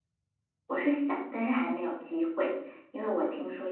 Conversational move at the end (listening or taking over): listening